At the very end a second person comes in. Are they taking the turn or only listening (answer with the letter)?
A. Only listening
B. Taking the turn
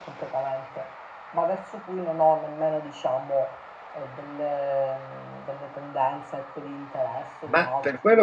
B